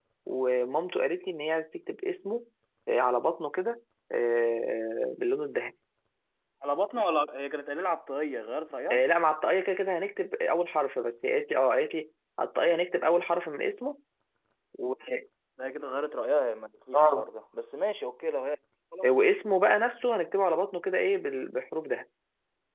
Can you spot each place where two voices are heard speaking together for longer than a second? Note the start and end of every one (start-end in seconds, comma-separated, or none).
none